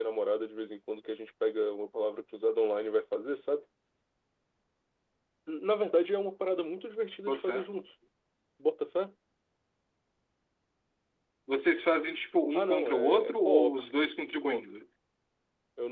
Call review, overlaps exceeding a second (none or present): present